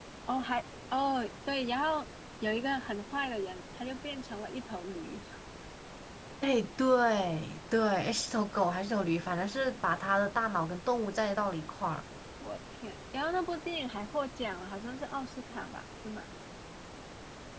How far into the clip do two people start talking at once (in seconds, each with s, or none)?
none